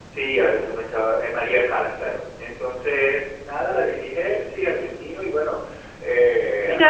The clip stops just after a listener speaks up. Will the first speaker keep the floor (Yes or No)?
Yes